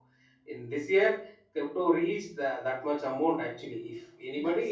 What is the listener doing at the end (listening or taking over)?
listening